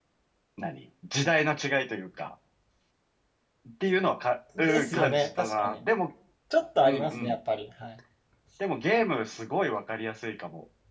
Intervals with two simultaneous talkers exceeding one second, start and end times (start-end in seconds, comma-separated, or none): 4.6-5.8